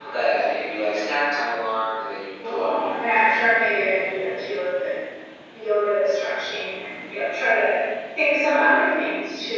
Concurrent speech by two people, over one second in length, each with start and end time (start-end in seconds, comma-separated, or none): 2.4-4.1